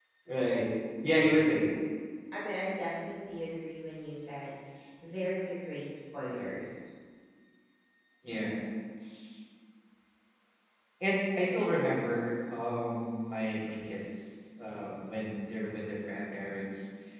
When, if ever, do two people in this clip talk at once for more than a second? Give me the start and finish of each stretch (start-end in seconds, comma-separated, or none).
none